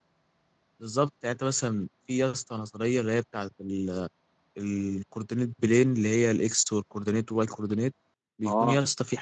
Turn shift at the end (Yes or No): No